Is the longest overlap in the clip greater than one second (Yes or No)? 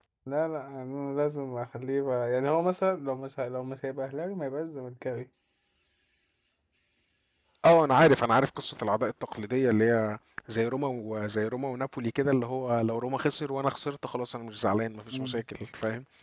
No